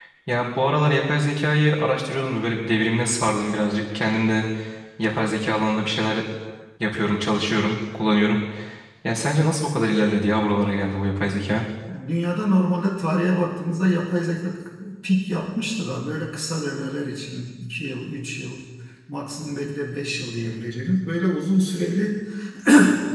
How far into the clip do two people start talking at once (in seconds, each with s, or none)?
none